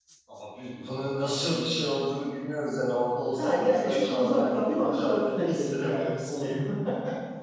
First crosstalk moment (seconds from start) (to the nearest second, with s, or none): 3 s